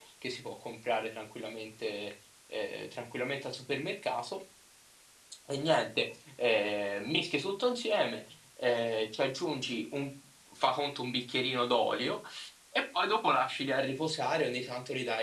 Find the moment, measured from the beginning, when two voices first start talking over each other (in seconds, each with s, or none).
none